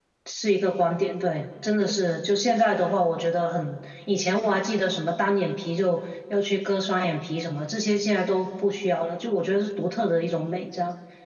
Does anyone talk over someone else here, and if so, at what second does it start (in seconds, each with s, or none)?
none